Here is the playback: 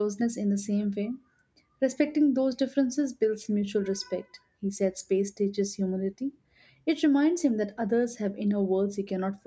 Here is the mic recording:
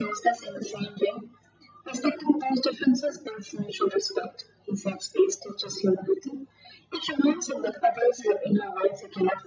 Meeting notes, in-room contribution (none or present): none